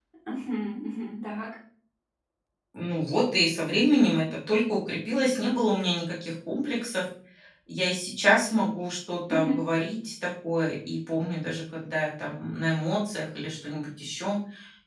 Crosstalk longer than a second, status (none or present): none